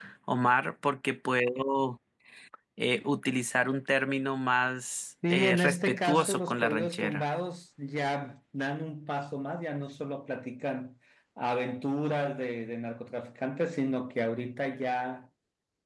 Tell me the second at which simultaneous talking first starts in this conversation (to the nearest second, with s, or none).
5 s